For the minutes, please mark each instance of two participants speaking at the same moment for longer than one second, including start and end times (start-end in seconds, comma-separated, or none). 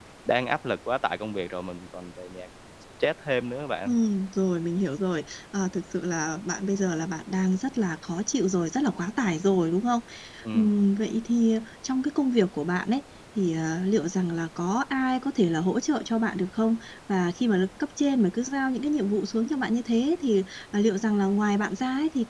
none